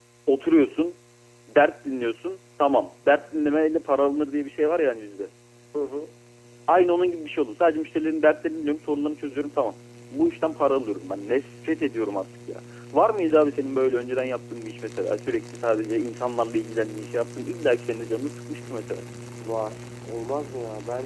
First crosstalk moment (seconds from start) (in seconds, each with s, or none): none